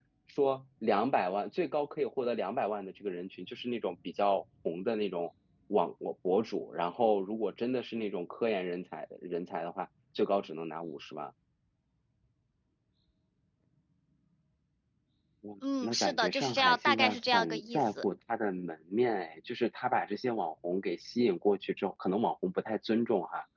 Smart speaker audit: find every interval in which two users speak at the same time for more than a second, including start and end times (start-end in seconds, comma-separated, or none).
15.8-18.0